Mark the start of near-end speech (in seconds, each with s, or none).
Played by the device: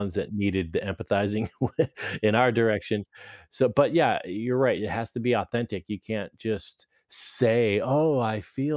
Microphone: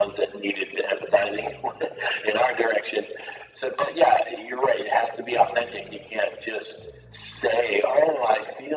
none